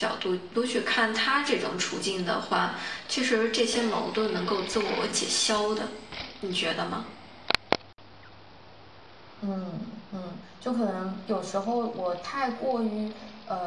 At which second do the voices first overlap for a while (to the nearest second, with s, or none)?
none